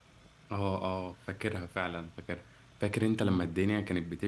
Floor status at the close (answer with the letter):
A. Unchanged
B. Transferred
A